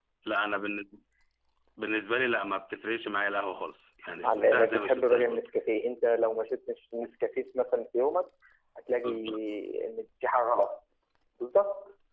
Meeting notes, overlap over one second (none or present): present